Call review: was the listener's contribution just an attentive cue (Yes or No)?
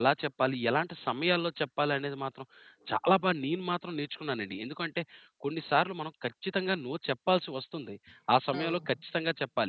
Yes